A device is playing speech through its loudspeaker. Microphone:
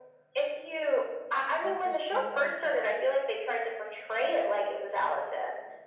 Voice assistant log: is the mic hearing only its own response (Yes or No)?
No